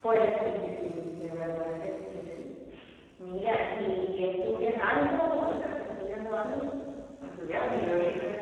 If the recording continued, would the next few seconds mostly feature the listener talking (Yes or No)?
Yes